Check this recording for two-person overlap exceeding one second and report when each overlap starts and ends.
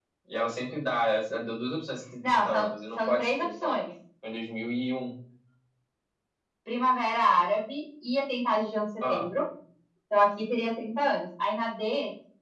2.2-3.9

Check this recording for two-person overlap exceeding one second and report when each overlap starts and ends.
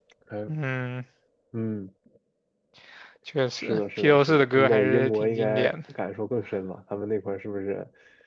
3.6-5.7

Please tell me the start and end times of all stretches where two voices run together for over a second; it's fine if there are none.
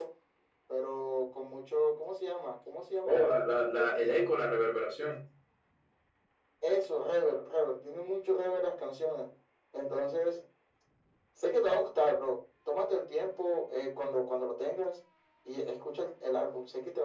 3.0-4.3

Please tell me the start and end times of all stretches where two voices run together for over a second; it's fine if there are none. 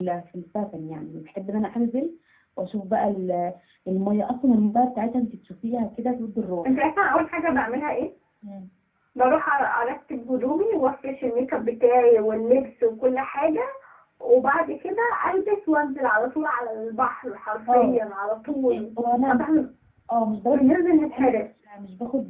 none

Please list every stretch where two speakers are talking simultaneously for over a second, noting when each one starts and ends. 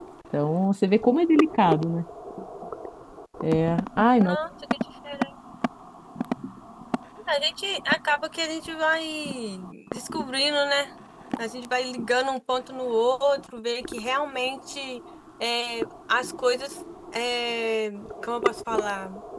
none

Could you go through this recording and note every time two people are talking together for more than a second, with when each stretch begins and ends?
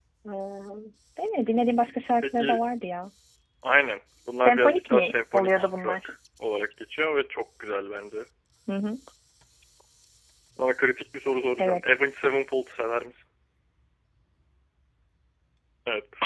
4.4-6.1

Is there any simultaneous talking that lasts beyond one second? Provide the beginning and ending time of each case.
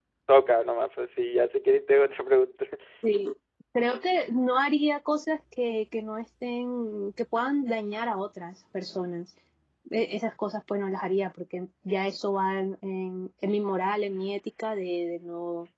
none

